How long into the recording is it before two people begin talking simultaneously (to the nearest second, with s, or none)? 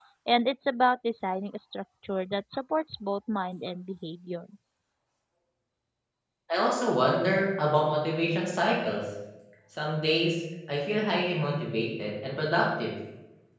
none